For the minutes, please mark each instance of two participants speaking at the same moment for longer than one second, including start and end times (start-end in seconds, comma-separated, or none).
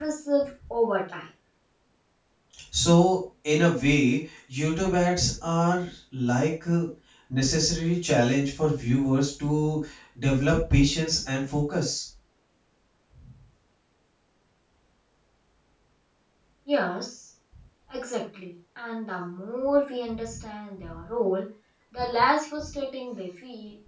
none